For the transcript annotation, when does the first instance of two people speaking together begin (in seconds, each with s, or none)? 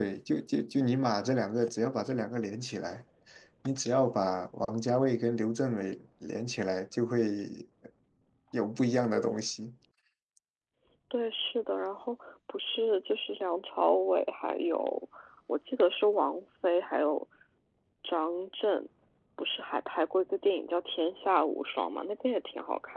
none